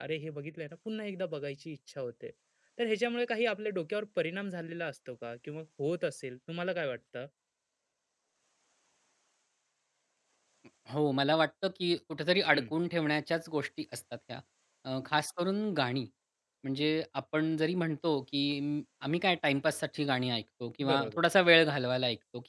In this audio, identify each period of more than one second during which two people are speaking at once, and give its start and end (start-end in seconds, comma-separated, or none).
none